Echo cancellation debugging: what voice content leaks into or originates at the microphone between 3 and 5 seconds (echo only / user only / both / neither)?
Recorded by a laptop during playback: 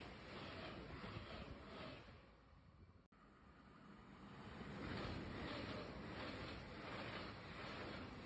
neither